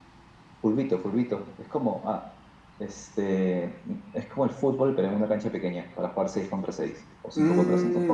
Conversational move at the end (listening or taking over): taking over